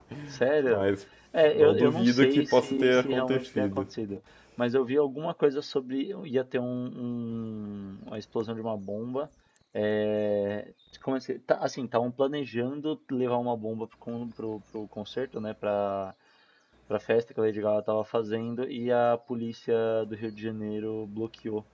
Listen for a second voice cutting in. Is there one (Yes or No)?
Yes